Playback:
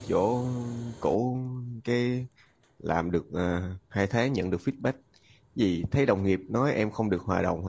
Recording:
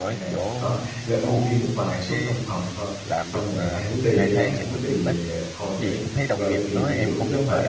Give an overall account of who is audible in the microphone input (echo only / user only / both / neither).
both